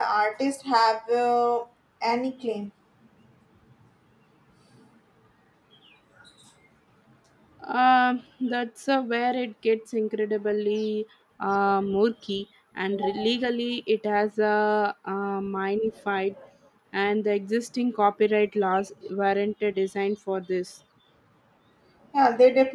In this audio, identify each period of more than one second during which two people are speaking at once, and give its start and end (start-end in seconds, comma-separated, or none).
none